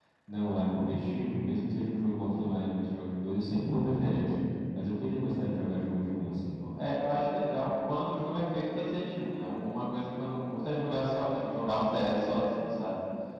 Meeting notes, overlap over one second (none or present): none